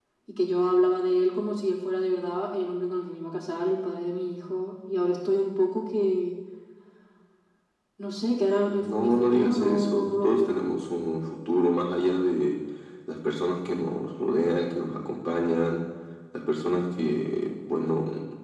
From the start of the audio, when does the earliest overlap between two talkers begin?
8.7 s

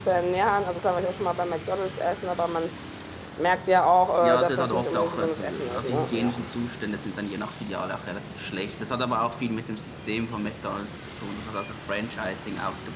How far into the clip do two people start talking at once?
4.2 s

